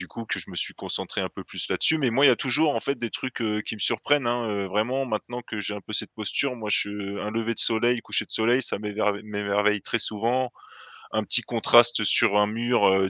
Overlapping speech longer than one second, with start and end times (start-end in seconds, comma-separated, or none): none